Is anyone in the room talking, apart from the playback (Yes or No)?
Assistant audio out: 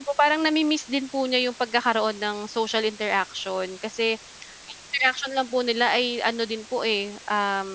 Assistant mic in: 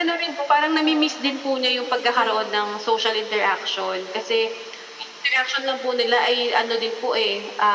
Yes